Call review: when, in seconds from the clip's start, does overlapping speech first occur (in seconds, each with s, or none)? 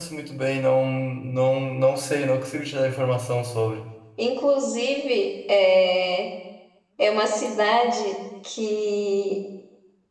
none